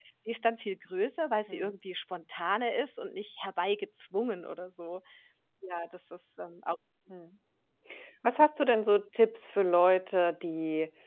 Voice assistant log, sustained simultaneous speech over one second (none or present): none